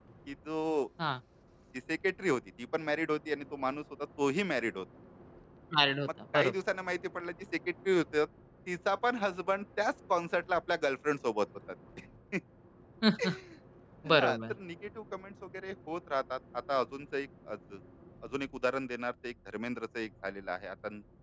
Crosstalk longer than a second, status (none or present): none